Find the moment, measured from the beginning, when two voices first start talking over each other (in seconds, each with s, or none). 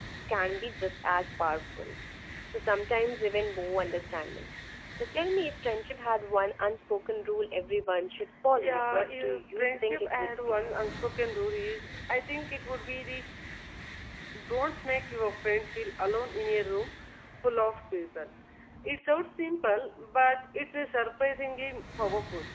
8.6 s